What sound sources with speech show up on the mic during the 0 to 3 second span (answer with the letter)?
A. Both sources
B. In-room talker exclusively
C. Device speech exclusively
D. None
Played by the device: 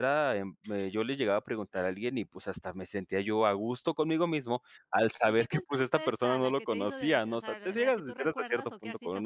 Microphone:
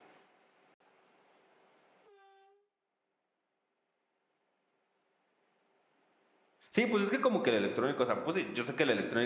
D